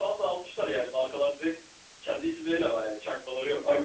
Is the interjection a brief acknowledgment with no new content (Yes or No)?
No